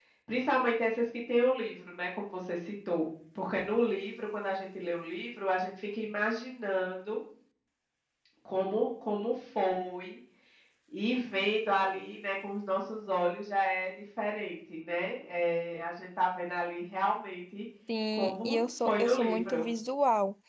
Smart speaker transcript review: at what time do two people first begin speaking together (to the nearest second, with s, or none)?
18 s